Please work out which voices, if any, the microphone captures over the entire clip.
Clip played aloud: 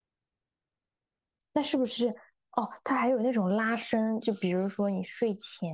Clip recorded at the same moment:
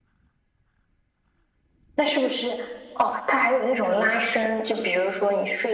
echo only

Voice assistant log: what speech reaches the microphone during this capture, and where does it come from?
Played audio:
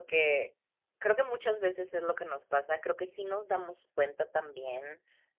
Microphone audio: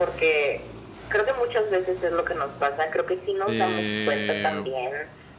both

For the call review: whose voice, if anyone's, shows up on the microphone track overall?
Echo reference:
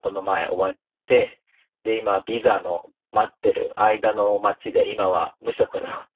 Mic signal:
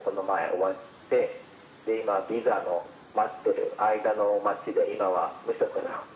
echo only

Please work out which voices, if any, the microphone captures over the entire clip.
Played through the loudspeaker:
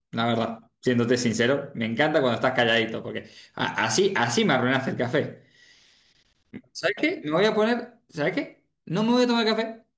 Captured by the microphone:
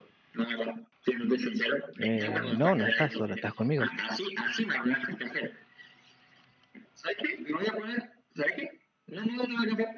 both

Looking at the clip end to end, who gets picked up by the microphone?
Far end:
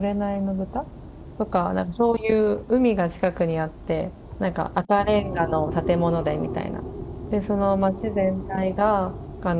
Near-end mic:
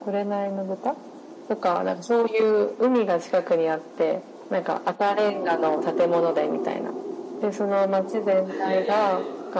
both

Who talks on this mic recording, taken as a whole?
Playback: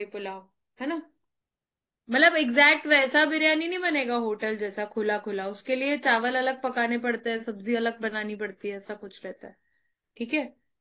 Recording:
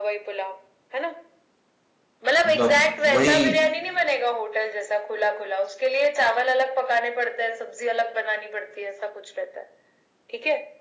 both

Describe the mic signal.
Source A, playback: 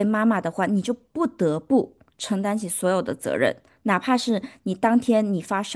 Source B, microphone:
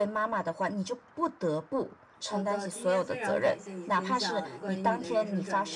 both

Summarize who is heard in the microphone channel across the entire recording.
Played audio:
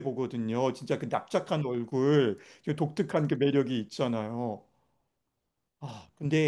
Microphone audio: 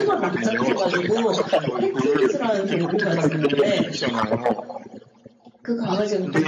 both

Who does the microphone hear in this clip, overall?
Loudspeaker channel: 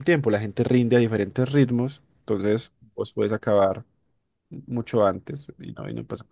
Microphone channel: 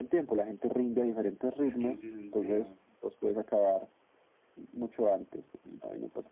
both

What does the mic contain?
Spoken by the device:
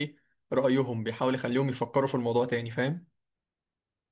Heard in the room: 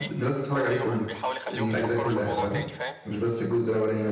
both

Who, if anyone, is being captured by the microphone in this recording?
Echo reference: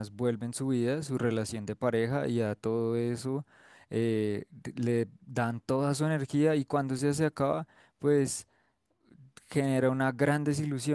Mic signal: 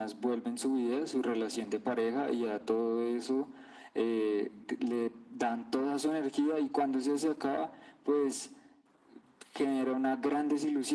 echo only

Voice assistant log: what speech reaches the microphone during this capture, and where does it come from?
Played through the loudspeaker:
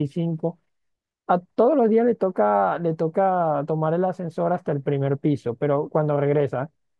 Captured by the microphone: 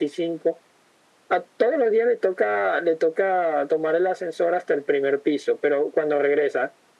echo only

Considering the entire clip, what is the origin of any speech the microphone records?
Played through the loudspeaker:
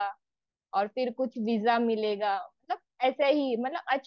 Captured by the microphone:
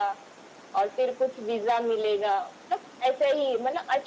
echo only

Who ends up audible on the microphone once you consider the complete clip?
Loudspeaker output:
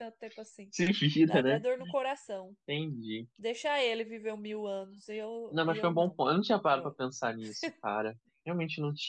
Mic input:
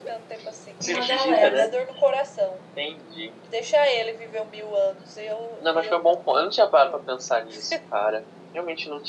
both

